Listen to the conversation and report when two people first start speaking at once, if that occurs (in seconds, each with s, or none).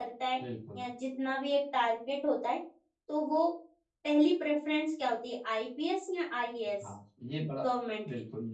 none